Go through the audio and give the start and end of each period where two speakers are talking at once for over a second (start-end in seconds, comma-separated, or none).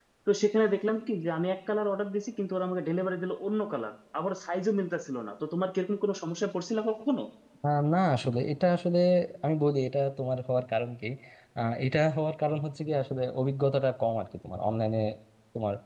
none